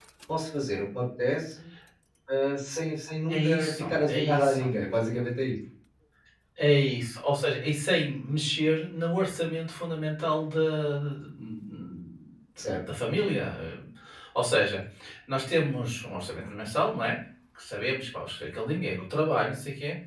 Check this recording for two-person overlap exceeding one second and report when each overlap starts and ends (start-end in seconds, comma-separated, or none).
3.3-4.6